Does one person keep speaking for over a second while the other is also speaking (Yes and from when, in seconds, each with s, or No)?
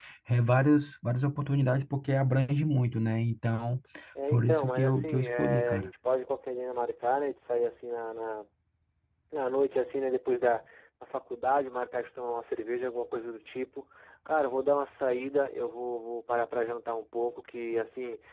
Yes, from 4.3 s